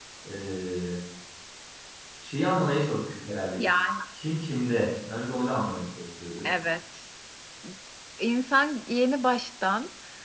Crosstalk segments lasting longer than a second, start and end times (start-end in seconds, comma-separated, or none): none